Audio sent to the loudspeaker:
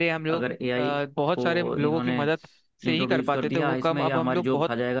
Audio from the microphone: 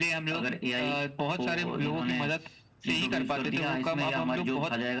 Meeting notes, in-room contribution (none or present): none